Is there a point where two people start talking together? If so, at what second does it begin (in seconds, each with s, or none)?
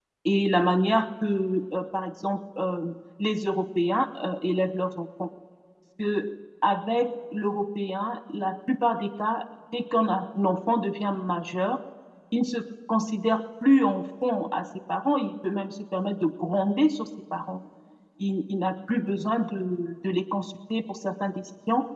none